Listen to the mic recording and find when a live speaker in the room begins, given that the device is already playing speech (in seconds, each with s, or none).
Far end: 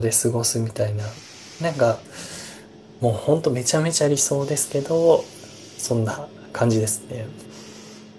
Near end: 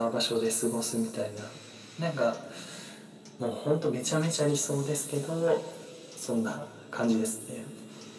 none